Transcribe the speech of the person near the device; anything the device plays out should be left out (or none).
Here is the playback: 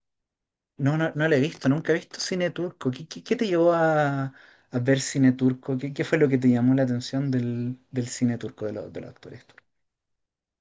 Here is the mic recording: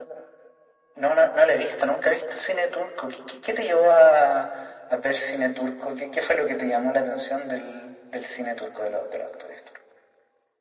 none